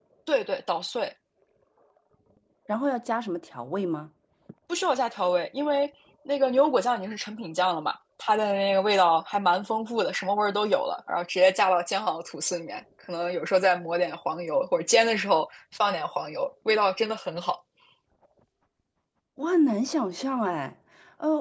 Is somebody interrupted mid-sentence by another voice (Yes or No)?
No